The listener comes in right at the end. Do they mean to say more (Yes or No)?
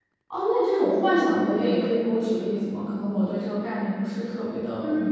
Yes